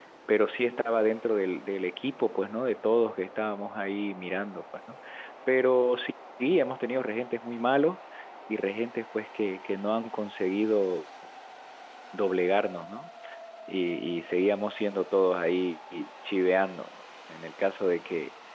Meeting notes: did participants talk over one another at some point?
No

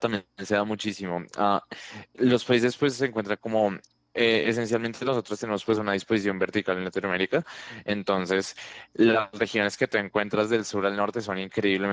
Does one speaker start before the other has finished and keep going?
No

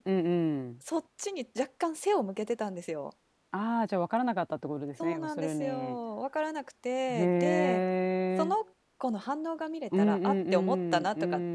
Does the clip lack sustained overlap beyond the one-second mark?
No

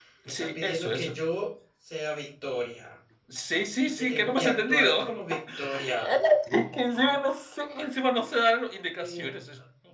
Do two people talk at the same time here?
Yes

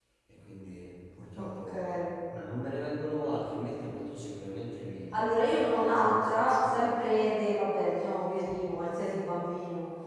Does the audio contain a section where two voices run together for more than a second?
Yes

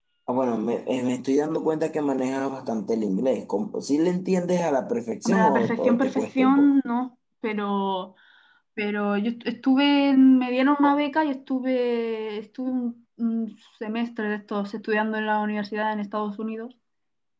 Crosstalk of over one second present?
Yes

